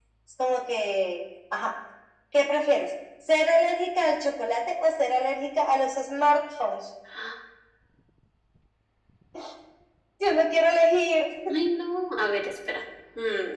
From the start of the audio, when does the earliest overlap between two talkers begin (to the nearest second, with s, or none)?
none